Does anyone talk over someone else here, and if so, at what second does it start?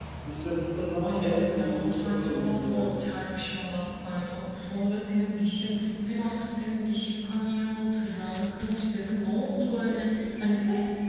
1.0 s

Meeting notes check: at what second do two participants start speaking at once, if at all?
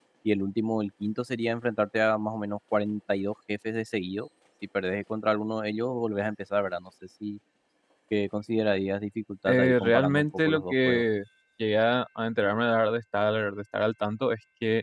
9.5 s

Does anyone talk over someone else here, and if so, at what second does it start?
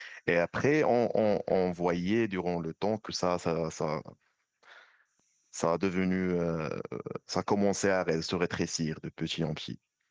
none

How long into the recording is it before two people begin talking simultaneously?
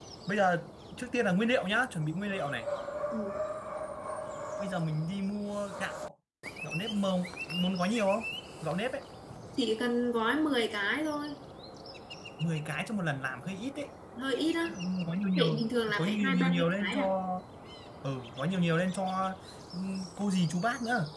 15.4 s

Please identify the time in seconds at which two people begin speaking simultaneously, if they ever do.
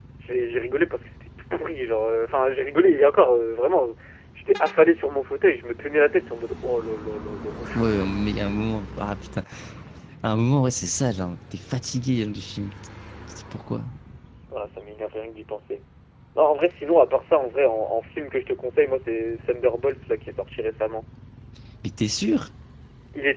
none

